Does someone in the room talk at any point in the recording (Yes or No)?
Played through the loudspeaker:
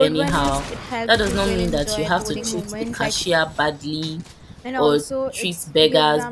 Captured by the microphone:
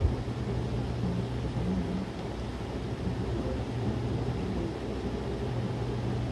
No